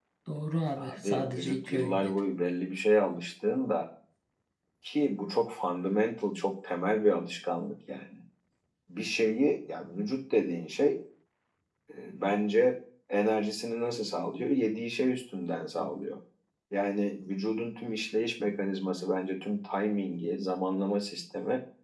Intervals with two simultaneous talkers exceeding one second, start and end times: 0.8-2.2

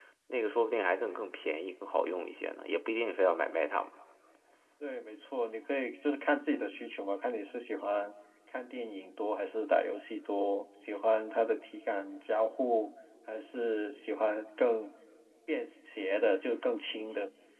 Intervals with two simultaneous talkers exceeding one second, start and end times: none

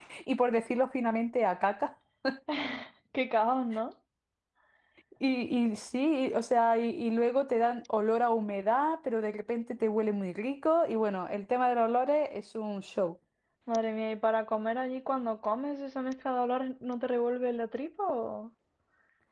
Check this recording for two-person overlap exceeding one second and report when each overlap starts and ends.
none

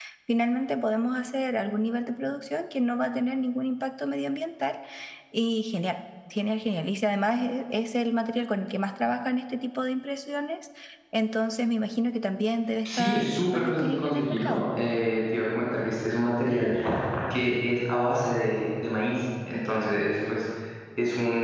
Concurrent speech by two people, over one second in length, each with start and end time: 12.8-14.6

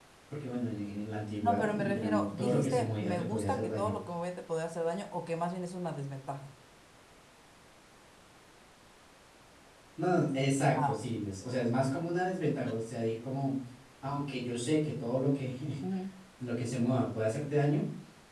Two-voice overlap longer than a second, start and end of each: 1.4-3.9

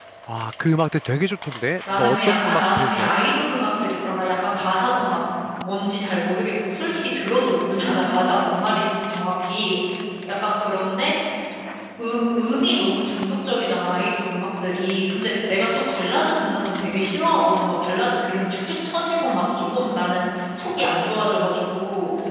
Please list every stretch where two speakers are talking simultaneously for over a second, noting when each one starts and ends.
1.9-3.2

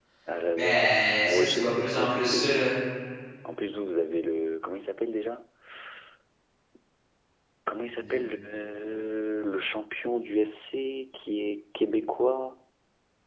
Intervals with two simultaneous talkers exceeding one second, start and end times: 1.2-2.7

